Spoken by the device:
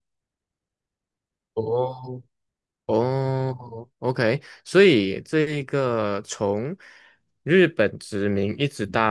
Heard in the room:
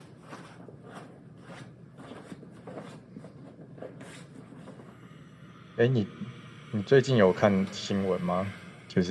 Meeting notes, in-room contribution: present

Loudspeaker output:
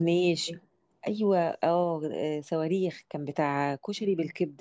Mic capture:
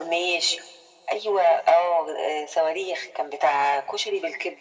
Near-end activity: none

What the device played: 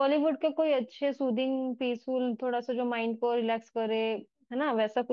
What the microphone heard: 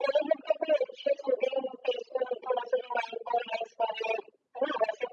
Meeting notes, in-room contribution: none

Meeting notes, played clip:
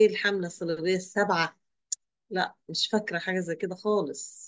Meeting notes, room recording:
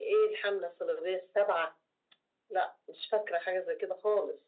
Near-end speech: none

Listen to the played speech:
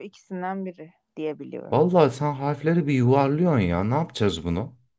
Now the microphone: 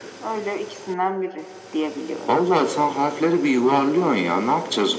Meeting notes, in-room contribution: none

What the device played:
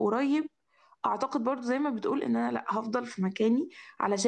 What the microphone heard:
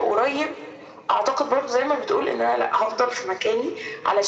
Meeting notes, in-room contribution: none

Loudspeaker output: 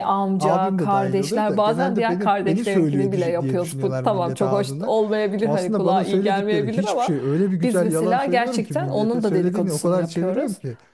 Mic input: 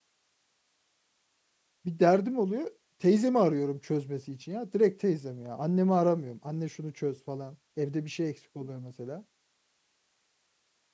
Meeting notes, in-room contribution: present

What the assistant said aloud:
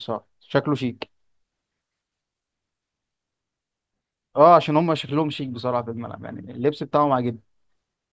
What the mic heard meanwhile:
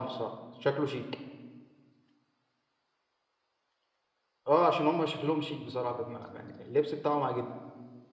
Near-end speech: none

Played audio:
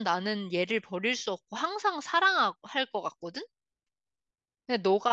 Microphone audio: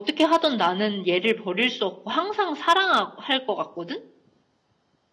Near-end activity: none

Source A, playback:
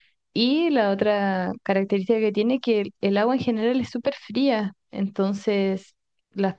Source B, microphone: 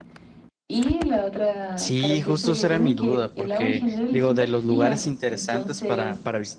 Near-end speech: present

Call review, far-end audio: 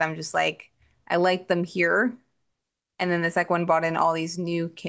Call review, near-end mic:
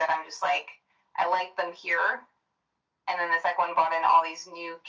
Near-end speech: none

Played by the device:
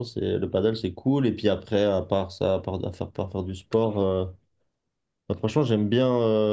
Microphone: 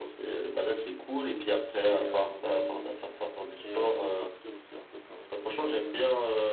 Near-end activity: present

